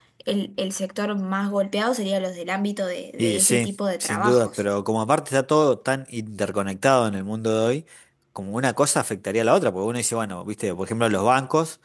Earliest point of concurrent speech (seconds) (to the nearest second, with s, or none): 3 s